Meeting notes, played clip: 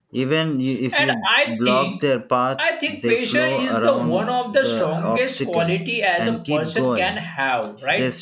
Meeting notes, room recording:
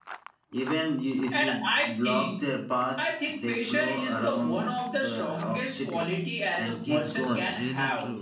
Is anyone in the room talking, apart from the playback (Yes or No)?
Yes